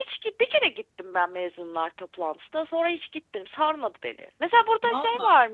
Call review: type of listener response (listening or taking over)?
listening